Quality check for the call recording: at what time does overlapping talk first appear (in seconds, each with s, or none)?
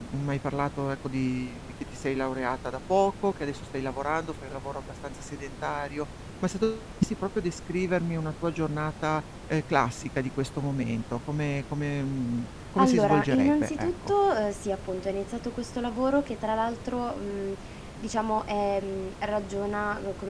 12.8 s